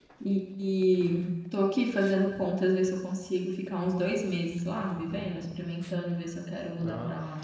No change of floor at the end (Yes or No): No